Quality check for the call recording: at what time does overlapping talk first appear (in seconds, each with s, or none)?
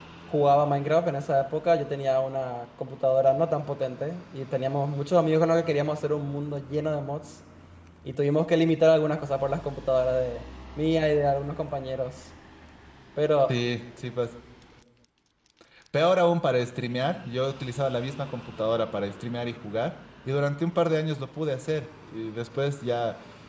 none